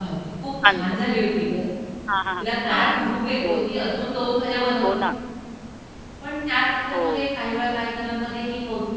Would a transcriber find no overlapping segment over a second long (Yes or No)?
Yes